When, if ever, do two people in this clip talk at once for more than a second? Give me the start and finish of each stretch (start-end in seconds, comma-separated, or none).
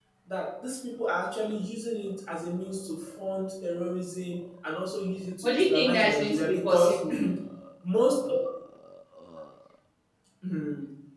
5.4-7.0